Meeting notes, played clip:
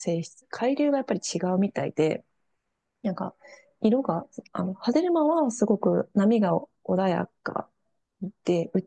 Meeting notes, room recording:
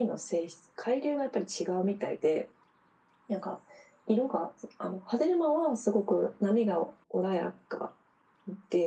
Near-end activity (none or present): none